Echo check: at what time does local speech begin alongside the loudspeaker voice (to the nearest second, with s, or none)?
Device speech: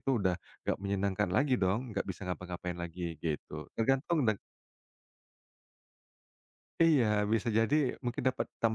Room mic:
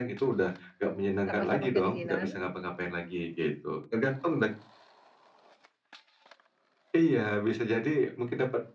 1 s